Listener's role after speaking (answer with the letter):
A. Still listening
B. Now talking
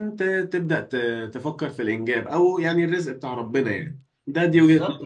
B